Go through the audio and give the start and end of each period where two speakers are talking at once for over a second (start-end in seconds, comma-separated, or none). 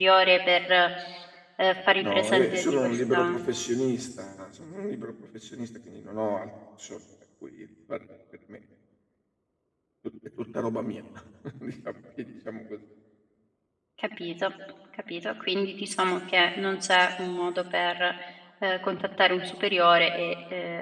2.0-3.4